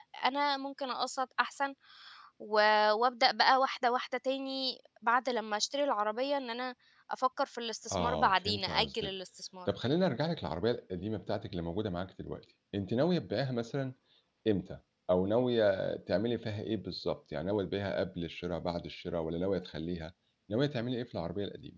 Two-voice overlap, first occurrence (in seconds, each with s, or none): 7.9 s